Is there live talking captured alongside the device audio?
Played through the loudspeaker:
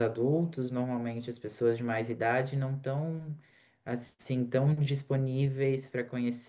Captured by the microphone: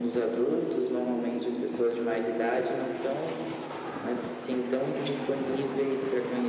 No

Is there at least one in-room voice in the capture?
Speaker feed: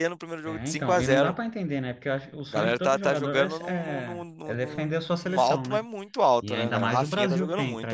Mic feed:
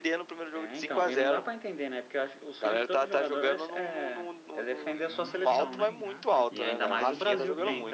Yes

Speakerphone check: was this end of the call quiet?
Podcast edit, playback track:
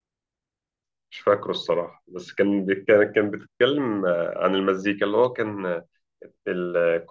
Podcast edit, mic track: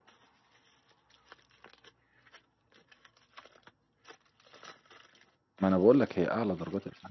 No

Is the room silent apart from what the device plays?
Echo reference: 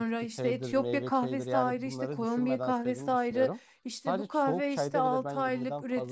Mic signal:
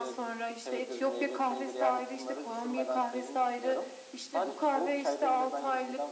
Yes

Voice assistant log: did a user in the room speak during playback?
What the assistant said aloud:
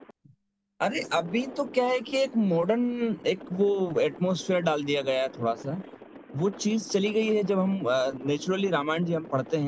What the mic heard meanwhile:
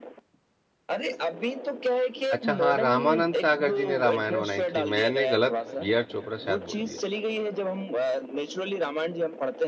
Yes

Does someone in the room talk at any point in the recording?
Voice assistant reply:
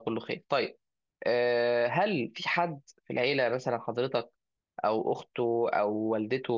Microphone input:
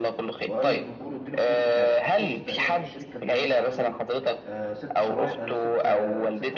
Yes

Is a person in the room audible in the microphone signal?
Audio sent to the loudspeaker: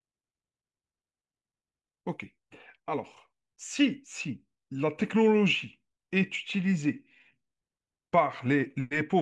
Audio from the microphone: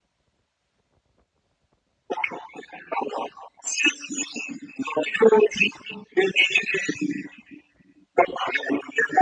No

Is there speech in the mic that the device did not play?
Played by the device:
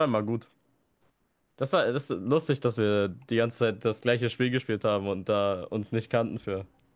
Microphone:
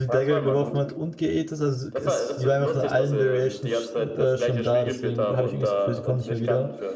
Yes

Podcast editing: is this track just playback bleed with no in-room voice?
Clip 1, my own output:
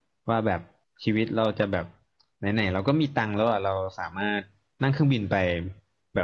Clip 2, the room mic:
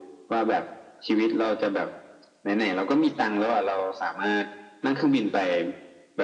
Yes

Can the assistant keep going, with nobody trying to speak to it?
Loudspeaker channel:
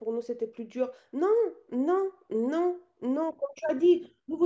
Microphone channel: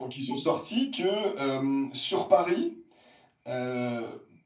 No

